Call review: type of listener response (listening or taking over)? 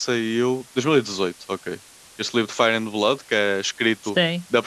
listening